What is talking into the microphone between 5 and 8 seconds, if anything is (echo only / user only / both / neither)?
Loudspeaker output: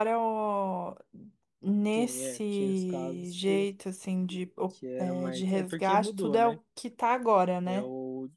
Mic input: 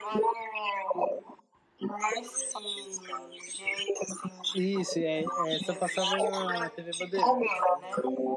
both